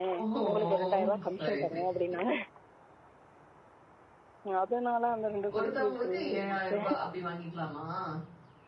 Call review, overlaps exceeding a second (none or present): present